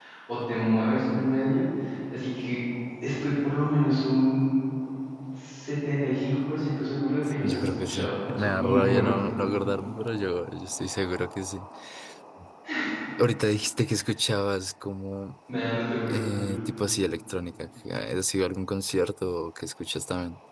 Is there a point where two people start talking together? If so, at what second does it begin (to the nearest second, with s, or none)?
7 s